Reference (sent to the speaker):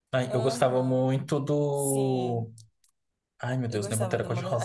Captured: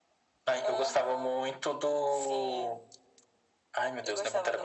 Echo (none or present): present